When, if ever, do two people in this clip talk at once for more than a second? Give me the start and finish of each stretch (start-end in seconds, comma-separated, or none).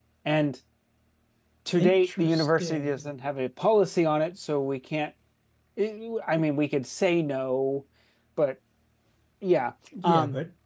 1.8-3.1